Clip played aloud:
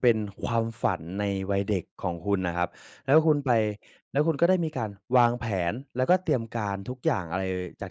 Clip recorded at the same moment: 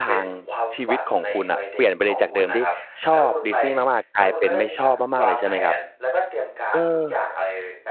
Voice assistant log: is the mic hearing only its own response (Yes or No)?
No